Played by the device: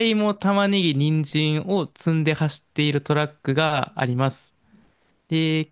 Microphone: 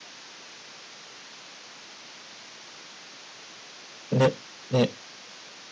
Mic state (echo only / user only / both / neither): user only